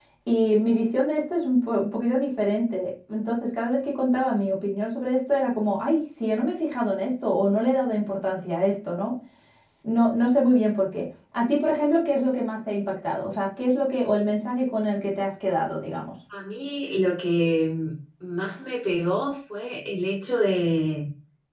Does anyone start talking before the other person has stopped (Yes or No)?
No